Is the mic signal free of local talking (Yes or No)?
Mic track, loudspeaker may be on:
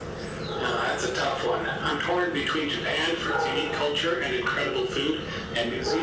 Yes